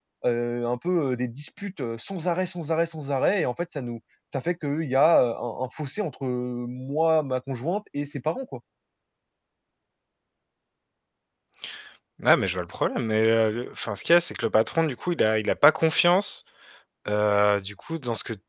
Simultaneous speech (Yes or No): No